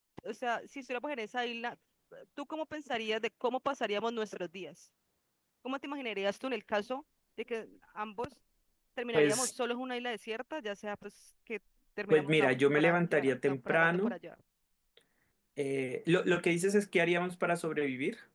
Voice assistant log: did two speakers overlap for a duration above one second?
Yes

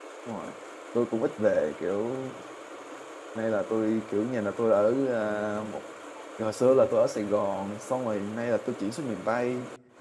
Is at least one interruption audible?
No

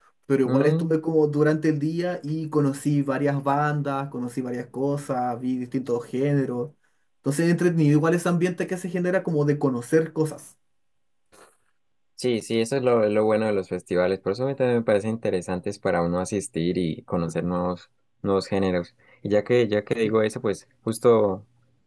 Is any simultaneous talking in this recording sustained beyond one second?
No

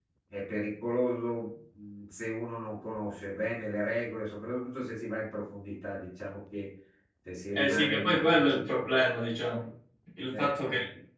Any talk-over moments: Yes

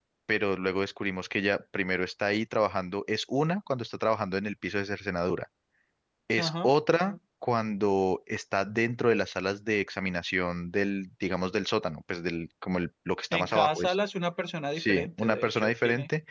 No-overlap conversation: No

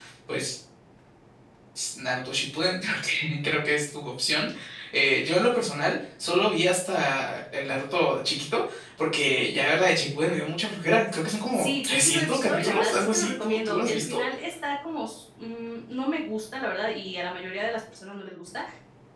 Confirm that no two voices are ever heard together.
No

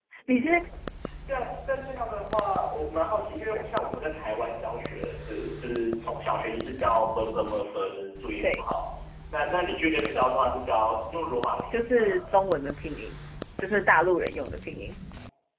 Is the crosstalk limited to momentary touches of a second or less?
Yes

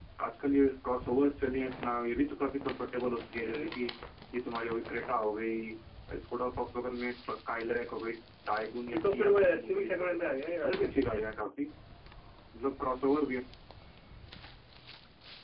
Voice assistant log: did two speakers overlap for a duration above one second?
Yes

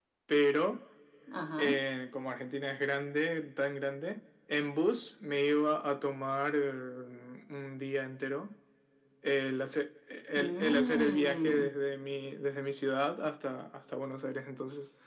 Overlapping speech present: Yes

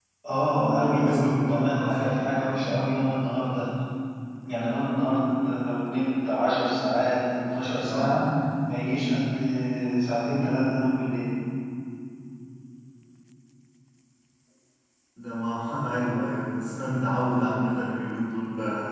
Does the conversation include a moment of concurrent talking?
Yes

